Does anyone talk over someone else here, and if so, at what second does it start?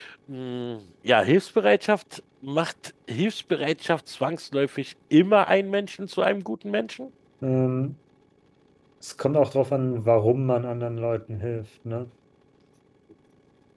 none

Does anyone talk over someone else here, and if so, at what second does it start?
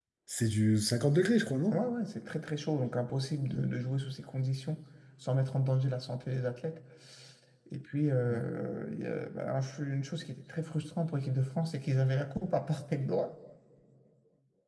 none

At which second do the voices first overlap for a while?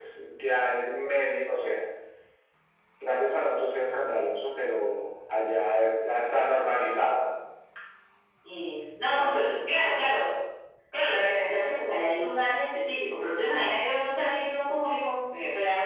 none

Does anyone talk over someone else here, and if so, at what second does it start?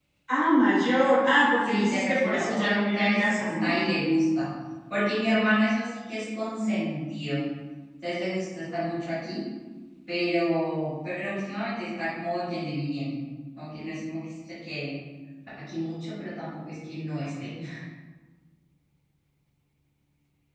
2 s

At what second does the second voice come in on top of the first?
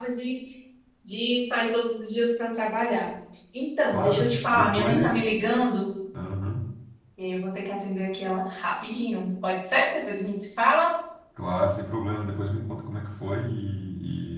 4 s

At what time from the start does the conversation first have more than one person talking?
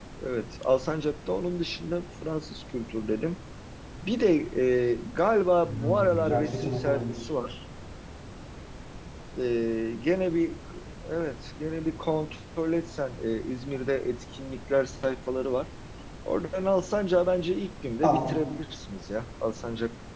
6 s

